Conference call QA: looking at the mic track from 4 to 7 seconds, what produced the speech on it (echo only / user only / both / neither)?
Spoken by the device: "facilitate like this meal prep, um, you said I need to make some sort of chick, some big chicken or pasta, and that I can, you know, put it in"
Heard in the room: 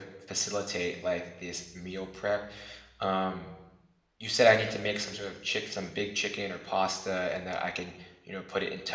echo only